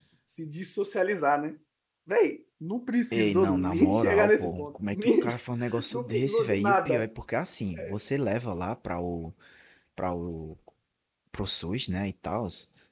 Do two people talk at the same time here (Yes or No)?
Yes